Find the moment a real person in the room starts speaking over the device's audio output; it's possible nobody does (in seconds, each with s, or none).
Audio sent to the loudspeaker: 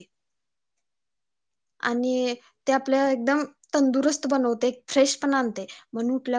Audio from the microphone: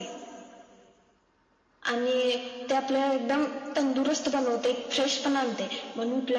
none